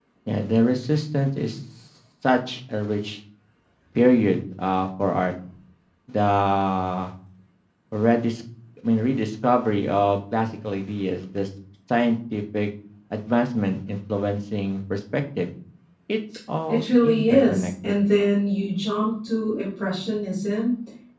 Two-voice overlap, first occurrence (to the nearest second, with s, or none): 17 s